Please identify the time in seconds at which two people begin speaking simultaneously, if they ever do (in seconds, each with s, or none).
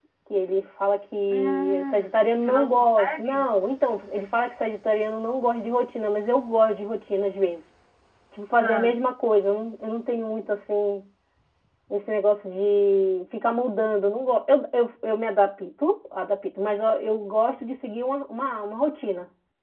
1.3 s